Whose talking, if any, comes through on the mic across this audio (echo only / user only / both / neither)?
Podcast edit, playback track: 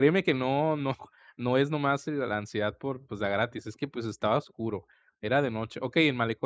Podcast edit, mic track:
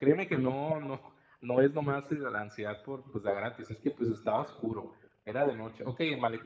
echo only